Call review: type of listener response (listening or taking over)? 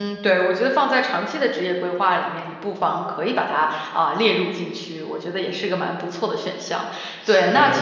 listening